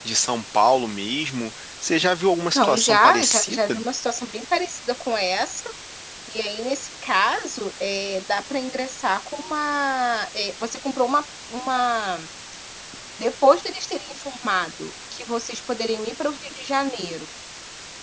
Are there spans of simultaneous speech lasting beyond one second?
Yes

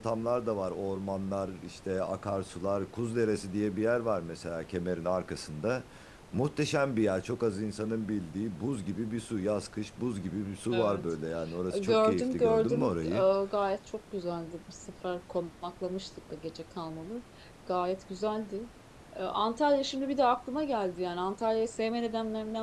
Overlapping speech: Yes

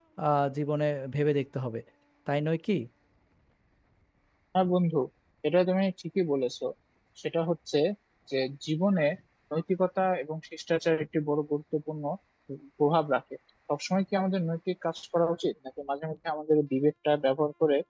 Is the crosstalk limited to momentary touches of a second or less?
Yes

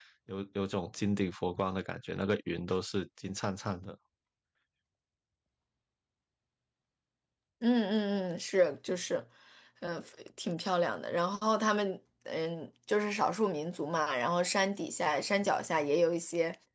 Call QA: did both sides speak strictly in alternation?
Yes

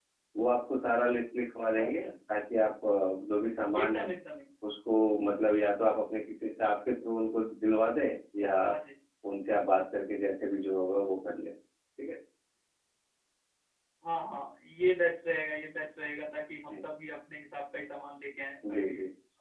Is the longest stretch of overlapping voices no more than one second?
Yes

